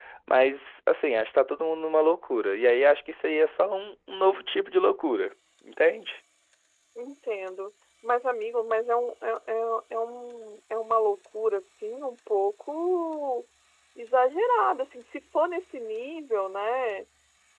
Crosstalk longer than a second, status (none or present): none